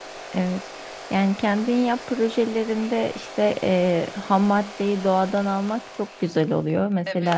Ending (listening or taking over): listening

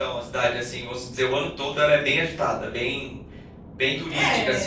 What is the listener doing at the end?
taking over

